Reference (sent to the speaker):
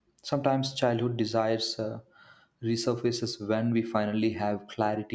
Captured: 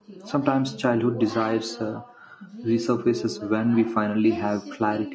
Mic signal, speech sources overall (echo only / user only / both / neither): both